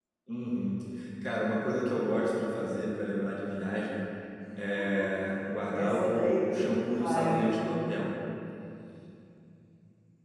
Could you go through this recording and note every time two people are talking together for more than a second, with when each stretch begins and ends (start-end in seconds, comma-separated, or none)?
5.7-7.5